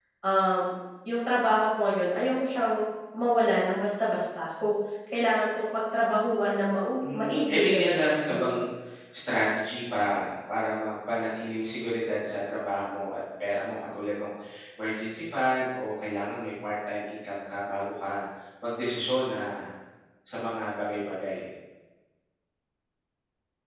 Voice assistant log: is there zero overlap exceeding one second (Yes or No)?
No